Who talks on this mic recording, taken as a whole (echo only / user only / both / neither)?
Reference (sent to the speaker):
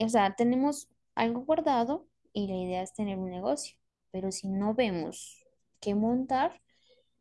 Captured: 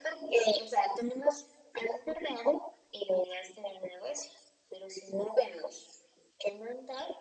echo only